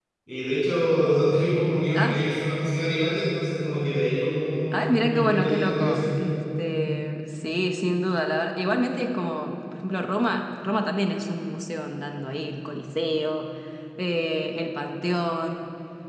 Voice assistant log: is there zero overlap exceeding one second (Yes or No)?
No